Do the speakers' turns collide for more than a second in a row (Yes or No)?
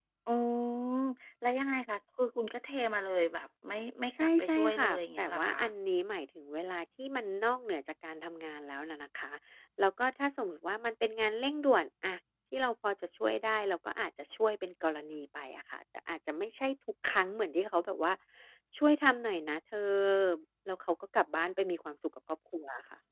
Yes